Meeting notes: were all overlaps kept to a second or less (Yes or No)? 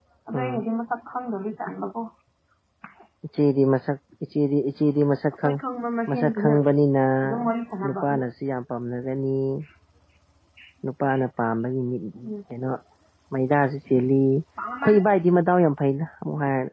Yes